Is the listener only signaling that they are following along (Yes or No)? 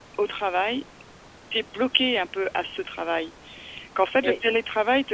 Yes